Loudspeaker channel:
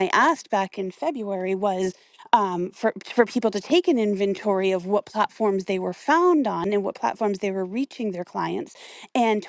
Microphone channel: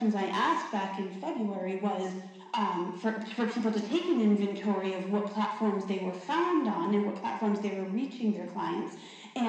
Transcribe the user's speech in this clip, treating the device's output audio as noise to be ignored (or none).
none